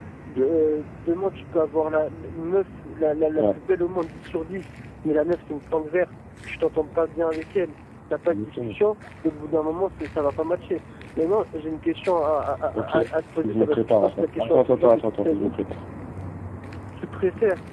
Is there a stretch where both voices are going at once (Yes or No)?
Yes